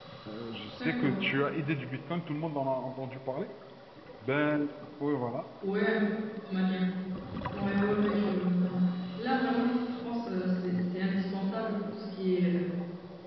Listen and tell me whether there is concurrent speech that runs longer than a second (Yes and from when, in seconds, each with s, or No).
No